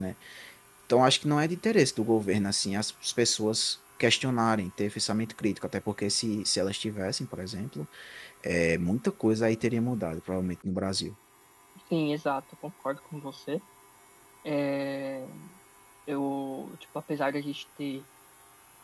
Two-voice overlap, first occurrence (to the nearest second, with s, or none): none